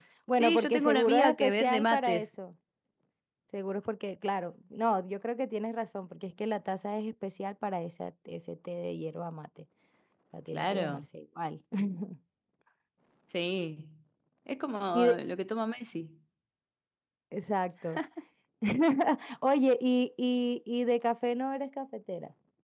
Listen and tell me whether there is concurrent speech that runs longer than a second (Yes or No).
Yes